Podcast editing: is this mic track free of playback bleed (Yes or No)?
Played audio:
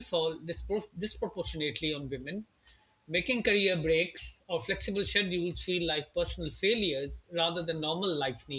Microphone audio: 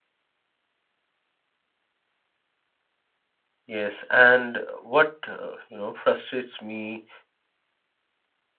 Yes